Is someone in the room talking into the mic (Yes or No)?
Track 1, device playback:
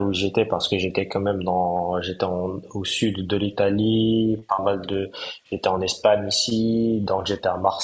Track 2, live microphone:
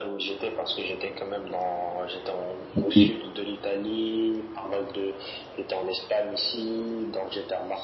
Yes